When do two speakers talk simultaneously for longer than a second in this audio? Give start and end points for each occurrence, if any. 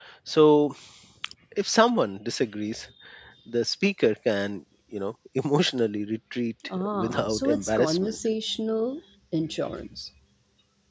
6.8-8.2

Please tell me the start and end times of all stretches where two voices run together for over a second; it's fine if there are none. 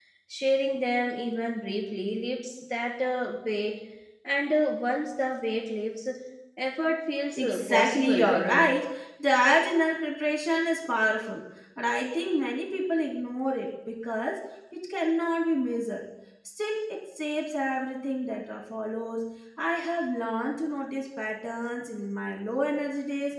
7.3-8.7

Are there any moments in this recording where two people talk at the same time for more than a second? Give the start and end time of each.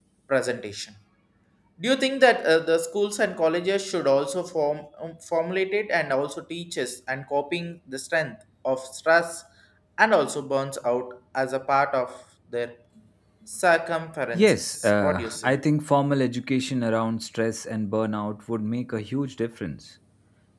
14.3-15.5

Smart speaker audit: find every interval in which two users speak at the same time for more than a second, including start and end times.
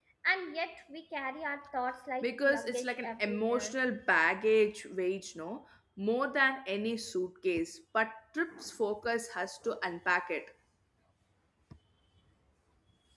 2.2-3.7

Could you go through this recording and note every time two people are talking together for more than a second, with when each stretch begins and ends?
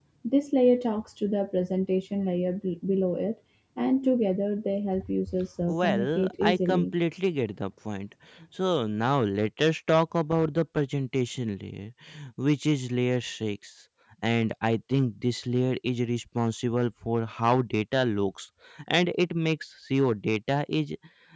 5.6-6.9

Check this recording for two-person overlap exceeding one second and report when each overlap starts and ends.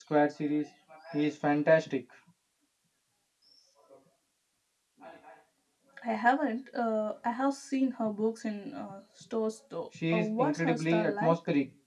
10.1-11.3

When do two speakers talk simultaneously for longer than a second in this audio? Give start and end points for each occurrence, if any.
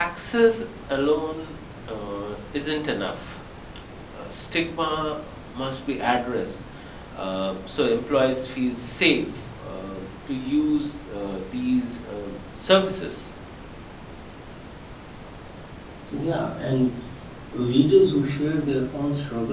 none

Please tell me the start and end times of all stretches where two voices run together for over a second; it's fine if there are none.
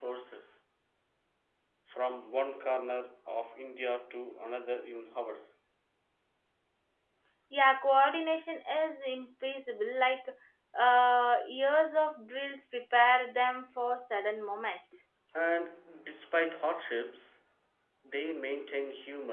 none

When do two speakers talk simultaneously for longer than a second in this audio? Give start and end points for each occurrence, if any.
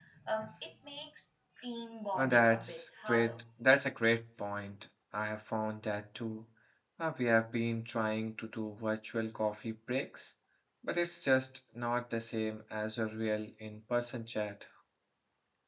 2.1-3.4

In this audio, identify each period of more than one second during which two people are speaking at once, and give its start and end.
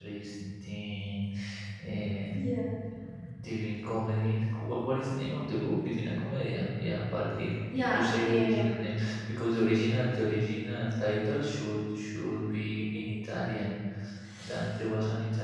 7.7-9.0

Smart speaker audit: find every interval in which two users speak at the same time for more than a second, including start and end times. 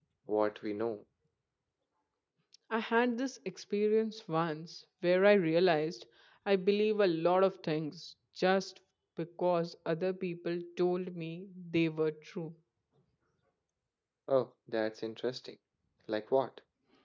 none

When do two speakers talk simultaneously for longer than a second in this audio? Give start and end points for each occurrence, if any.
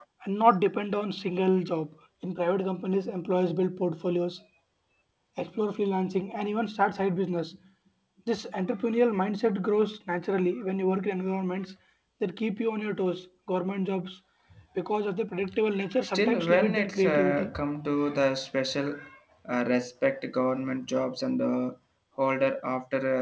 16.0-17.5

